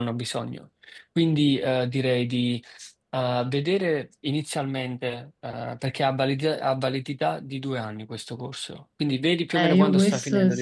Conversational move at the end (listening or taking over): taking over